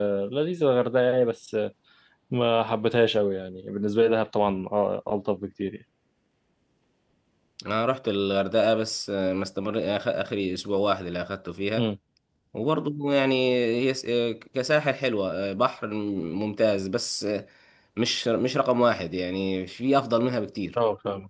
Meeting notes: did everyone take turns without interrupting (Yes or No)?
Yes